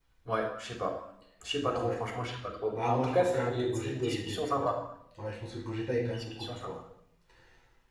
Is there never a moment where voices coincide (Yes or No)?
No